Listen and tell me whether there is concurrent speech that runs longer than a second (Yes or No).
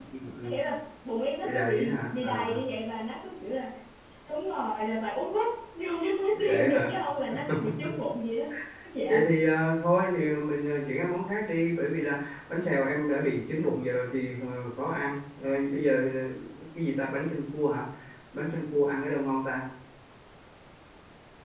Yes